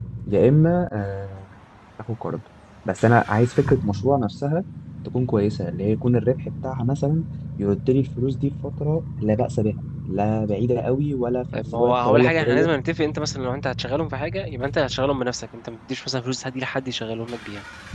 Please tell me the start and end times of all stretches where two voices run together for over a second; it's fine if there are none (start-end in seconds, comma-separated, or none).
11.5-12.7